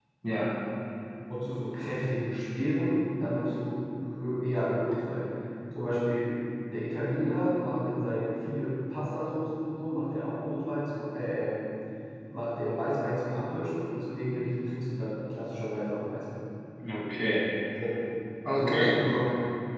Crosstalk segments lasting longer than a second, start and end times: none

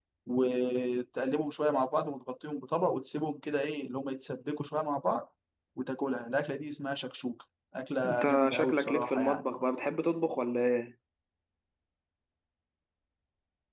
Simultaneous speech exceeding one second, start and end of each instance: 8.0-9.4

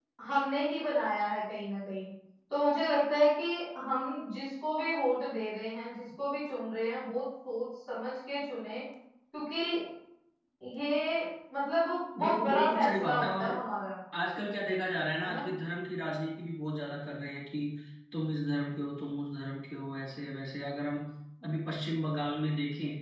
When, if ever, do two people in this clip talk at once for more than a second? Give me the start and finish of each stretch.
12.2-13.4

